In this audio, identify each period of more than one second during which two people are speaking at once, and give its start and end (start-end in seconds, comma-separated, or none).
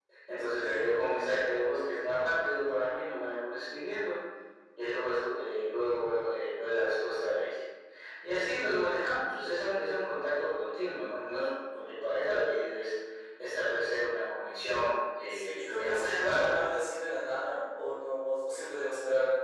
15.3-16.5